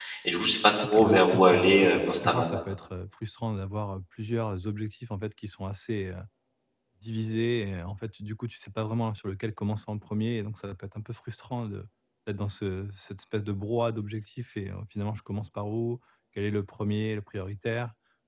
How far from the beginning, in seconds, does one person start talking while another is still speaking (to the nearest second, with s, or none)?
1 s